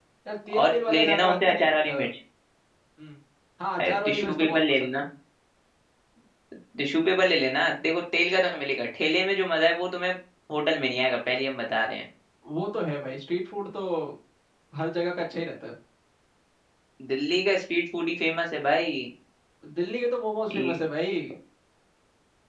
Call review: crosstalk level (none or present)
present